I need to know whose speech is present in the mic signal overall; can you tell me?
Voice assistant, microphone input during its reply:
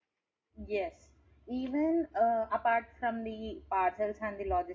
user only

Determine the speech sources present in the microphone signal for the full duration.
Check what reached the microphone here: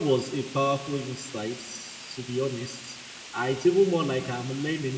user only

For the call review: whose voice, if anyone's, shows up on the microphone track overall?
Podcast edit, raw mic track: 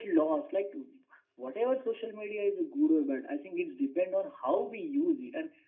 echo only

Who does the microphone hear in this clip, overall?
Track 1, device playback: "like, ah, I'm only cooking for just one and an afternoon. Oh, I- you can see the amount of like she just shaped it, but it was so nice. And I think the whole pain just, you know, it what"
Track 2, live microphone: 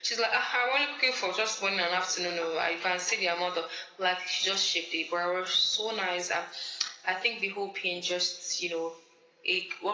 echo only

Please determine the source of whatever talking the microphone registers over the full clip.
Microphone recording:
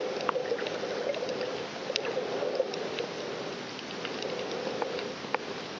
neither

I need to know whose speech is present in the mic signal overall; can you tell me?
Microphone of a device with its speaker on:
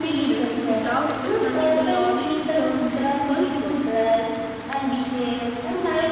both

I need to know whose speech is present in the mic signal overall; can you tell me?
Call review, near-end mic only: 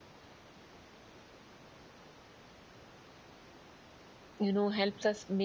user only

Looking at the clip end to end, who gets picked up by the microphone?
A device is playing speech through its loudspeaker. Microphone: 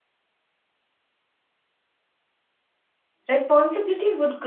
user only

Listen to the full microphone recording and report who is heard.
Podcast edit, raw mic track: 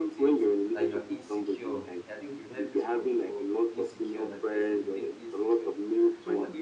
both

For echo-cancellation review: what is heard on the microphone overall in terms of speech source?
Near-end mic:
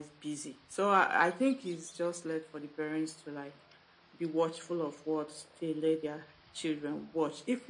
echo only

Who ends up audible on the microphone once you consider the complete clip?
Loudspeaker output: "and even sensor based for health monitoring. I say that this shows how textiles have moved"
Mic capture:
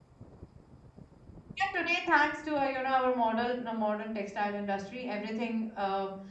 user only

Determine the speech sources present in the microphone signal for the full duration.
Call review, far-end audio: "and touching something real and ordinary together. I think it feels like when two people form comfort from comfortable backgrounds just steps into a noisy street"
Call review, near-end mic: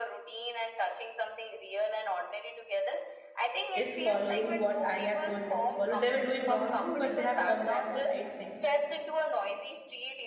both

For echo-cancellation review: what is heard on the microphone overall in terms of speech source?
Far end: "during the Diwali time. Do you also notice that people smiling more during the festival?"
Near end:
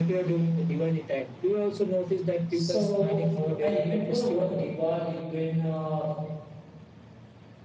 both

